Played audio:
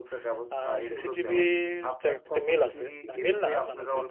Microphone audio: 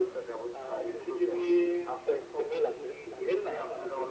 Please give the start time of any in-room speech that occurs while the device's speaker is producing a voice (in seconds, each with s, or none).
none